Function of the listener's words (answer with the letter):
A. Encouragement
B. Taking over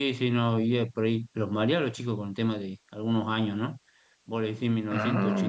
A